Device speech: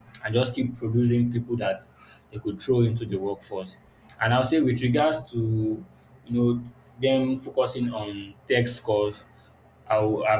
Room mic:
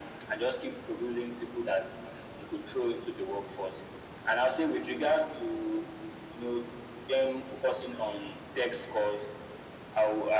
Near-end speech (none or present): none